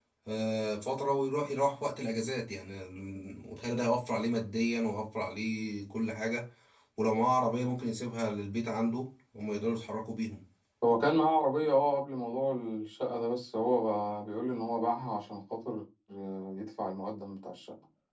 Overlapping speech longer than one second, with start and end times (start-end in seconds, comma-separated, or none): none